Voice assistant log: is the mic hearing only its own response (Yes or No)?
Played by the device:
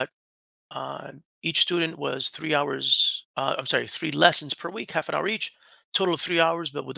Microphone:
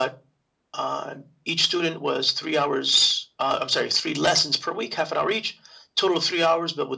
Yes